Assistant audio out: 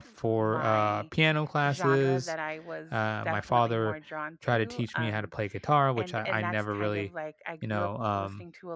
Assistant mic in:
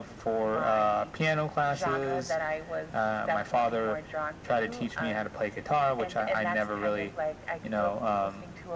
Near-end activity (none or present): none